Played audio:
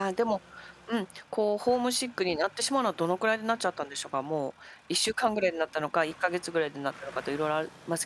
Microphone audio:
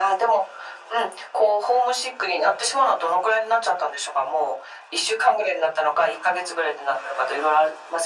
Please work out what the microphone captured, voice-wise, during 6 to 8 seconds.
echo only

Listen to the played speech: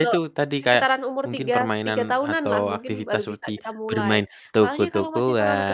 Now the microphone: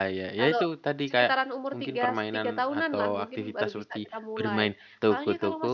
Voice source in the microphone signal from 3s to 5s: echo only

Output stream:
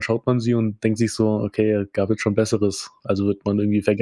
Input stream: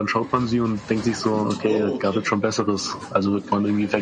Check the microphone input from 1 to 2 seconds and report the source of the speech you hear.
both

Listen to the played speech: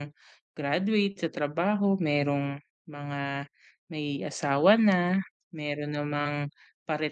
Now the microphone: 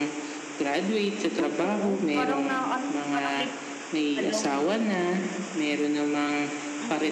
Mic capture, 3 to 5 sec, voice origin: both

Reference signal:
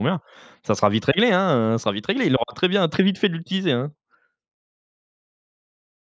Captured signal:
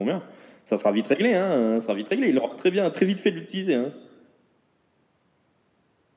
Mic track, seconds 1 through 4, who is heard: echo only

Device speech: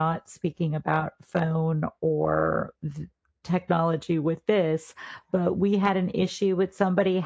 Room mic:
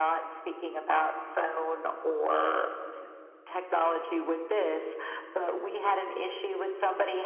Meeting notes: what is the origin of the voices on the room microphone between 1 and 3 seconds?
echo only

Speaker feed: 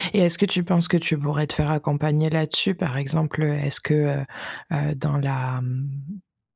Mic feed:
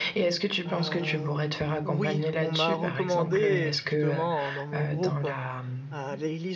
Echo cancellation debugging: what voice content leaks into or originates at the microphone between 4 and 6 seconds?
both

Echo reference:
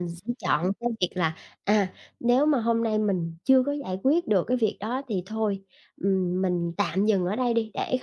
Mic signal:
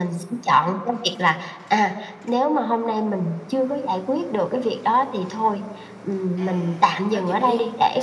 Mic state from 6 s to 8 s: both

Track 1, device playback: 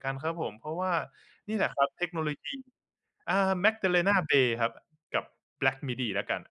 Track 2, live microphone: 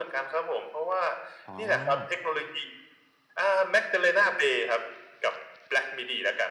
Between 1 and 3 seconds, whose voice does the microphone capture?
both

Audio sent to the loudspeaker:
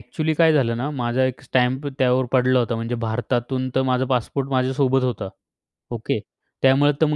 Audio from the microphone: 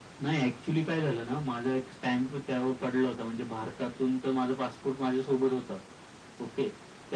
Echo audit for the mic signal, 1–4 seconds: echo only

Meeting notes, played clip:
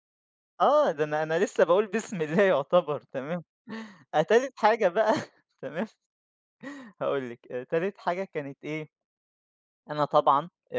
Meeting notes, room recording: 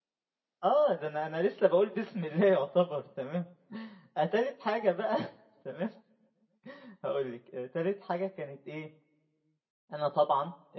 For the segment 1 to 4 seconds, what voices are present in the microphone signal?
echo only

